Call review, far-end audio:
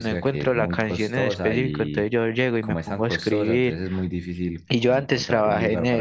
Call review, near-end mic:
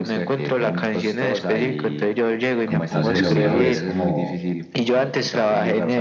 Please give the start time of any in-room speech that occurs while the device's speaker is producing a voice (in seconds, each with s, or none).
2.7 s